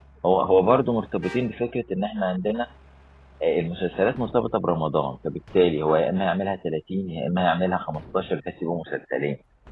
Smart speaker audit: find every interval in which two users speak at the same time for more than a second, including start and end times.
none

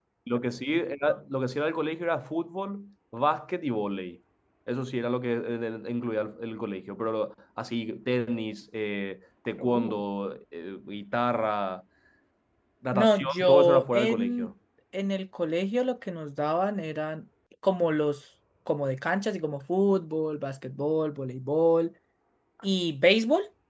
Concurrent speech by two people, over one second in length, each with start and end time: 12.9-14.5

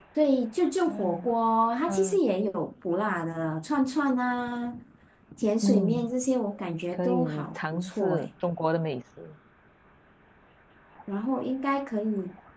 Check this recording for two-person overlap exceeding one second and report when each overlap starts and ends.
6.9-8.3

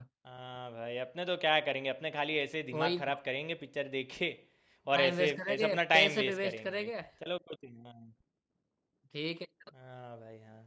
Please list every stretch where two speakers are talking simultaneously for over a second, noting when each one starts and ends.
4.9-6.9

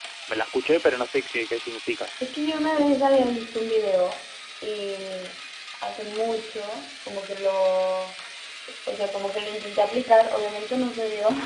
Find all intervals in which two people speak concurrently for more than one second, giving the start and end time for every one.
none

